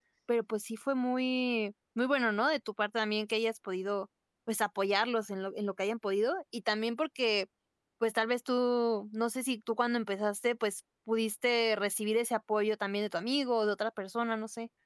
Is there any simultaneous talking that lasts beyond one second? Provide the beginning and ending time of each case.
none

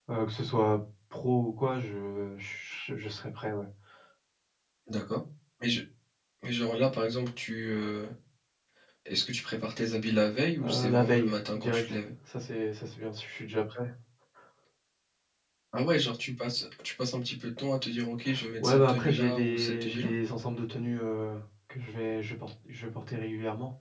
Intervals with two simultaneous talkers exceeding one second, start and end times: 10.6-12.0, 18.6-20.1

